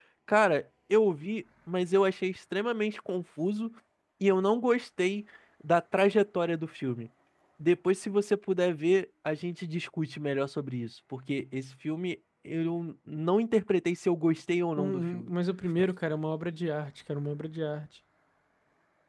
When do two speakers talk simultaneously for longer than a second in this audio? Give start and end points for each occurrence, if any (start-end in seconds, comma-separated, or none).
none